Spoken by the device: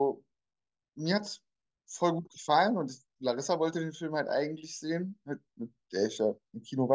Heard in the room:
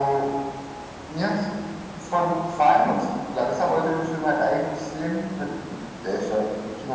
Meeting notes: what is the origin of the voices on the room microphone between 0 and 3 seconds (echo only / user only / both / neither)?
echo only